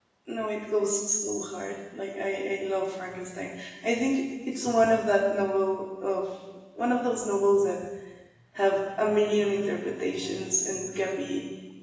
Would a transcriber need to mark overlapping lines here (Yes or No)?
No